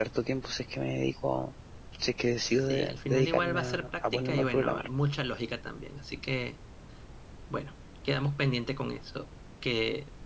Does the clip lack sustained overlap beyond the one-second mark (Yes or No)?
No